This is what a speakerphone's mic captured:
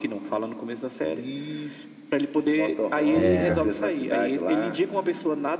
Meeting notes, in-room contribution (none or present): present